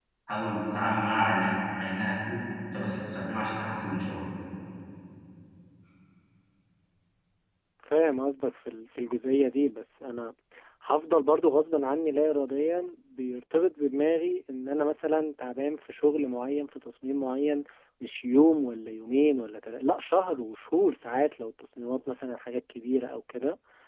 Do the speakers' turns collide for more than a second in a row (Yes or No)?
No